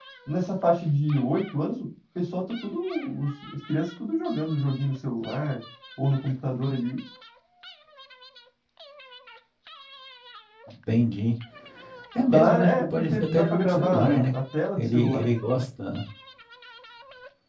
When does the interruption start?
12.3 s

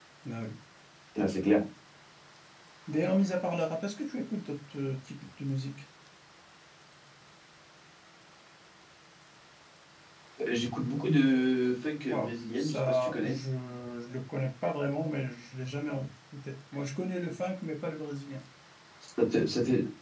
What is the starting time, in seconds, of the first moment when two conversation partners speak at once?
12.1 s

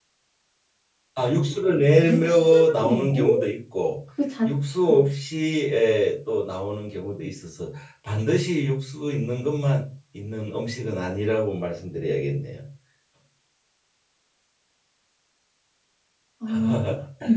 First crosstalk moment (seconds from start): 2.0 s

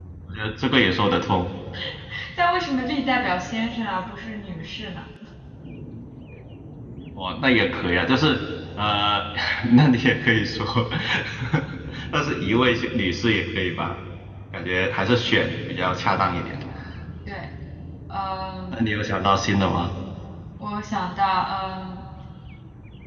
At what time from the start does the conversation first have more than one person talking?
none

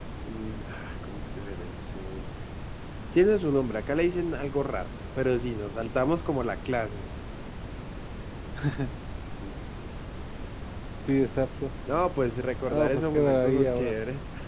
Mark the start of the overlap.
12.7 s

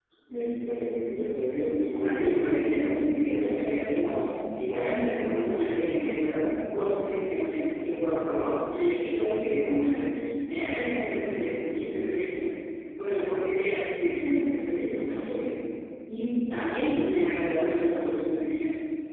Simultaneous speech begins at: 2.0 s

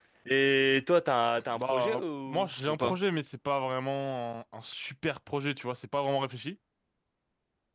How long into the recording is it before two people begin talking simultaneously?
1.4 s

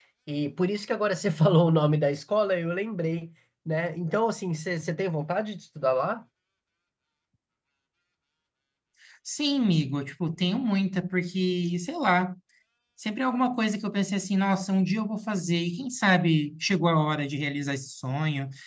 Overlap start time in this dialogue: none

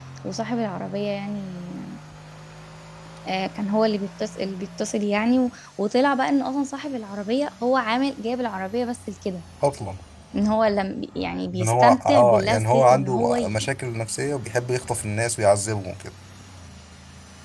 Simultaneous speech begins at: 11.5 s

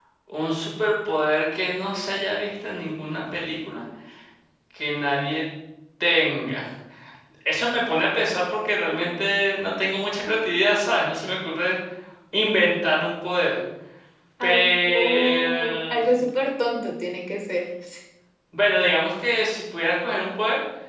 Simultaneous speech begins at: 14.4 s

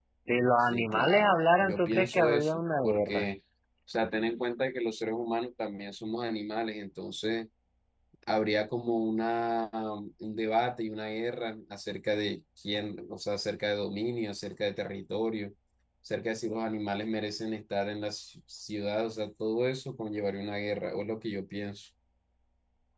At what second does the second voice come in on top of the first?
0.6 s

